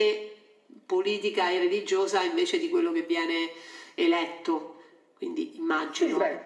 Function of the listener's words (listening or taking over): taking over